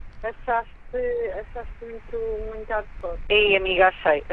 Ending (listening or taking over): taking over